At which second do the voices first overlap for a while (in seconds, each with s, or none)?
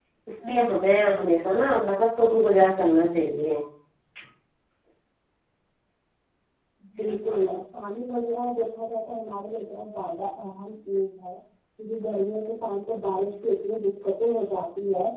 none